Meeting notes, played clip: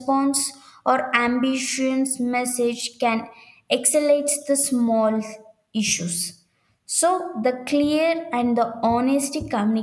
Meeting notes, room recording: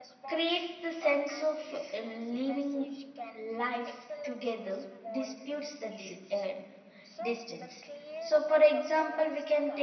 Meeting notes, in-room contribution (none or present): present